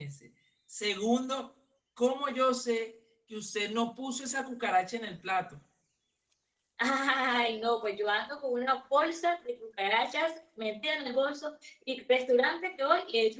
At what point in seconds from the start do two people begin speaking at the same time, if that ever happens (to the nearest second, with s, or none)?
none